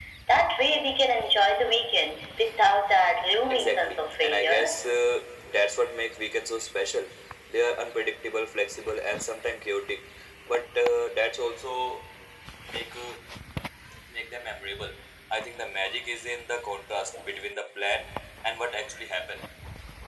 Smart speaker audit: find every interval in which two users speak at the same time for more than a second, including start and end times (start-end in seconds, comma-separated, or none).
3.5-4.8